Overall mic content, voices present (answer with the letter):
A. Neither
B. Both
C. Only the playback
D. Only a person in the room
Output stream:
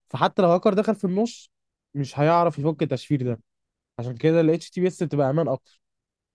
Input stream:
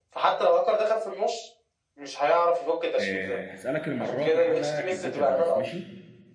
B